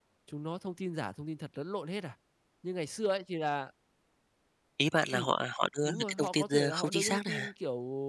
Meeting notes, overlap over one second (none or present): present